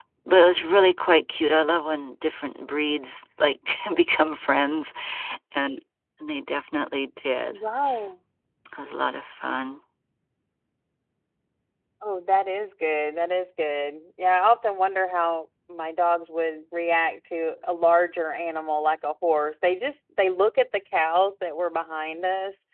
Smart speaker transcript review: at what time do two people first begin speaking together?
none

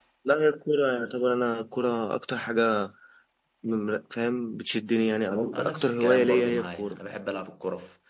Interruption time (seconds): 5.5 s

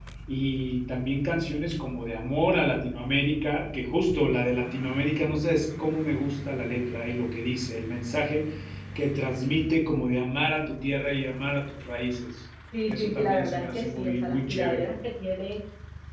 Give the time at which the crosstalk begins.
12.7 s

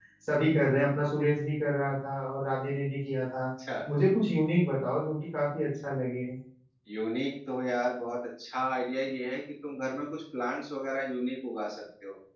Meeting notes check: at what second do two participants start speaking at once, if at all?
none

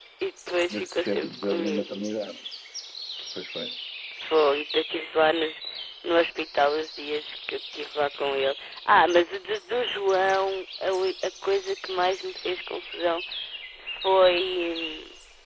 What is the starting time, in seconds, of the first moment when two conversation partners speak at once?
0.7 s

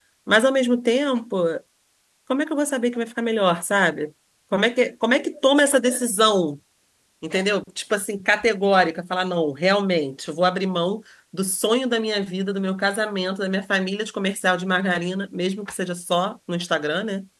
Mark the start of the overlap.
none

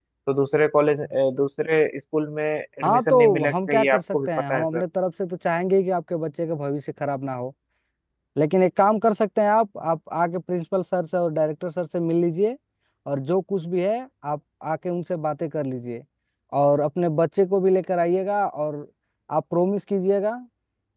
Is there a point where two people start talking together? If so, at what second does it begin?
2.8 s

